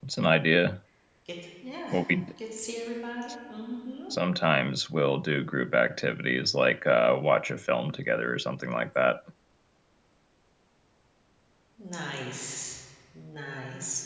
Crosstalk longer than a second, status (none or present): none